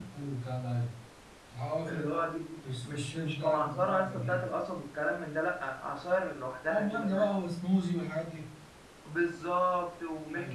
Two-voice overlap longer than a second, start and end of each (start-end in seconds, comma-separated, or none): 2.9-4.5